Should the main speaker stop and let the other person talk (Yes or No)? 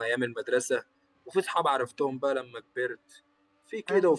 No